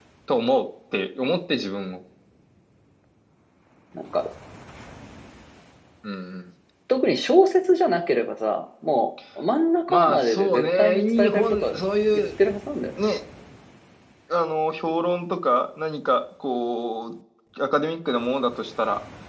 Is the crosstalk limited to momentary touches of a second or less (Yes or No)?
No